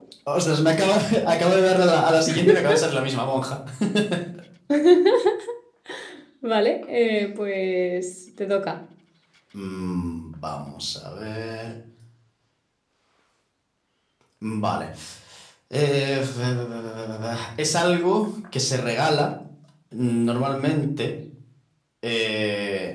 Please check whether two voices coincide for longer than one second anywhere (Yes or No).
No